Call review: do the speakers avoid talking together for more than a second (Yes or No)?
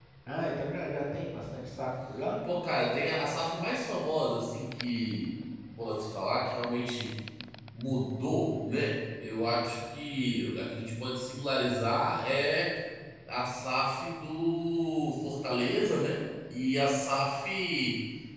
Yes